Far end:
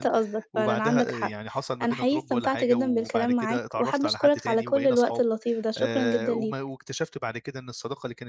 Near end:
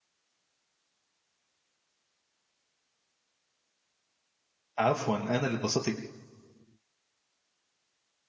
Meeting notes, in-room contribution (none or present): present